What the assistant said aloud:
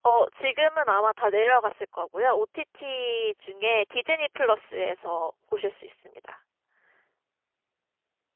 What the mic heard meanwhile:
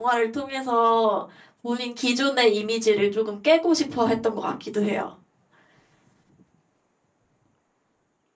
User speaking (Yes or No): Yes